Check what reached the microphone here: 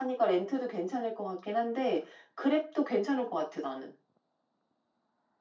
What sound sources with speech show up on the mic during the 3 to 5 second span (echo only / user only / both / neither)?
user only